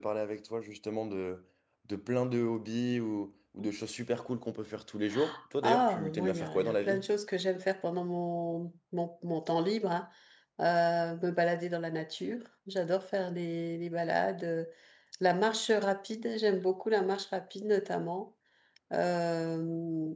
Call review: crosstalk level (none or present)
present